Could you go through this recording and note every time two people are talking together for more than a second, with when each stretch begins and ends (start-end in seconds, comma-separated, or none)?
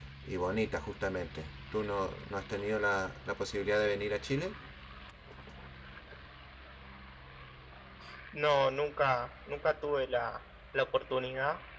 none